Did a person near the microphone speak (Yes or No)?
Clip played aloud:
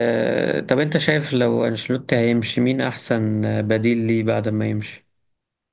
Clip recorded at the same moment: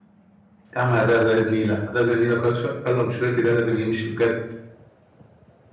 Yes